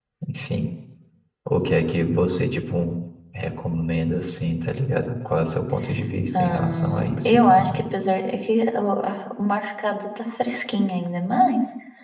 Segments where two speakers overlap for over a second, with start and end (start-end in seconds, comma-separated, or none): 6.4-7.8